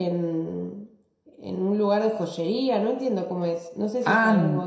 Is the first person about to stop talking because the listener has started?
Yes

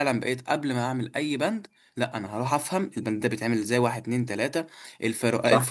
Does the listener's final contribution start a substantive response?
No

